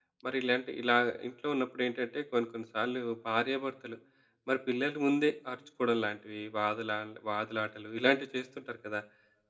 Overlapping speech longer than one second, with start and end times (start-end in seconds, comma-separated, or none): none